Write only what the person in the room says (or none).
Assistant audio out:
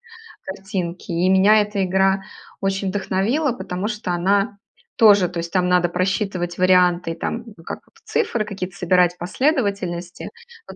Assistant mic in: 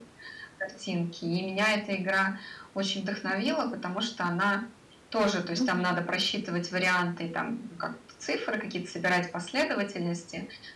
Мгм.